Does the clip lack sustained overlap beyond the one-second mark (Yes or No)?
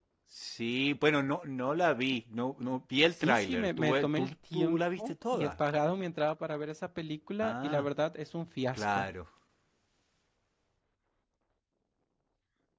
No